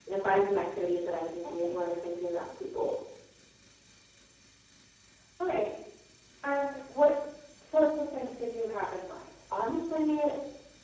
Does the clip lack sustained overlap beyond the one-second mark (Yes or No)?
Yes